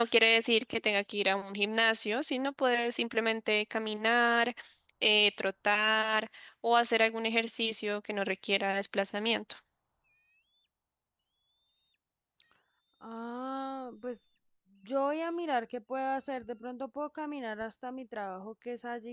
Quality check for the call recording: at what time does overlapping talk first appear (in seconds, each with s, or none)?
none